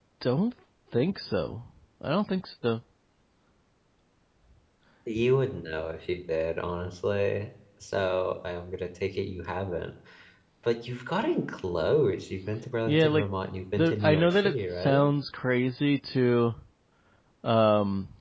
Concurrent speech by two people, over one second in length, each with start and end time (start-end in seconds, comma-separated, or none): 13.8-15.0